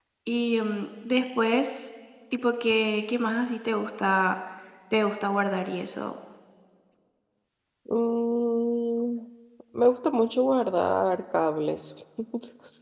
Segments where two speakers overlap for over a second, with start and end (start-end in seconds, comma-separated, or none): none